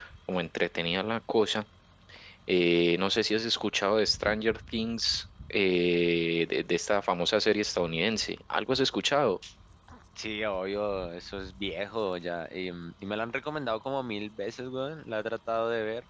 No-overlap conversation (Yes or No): Yes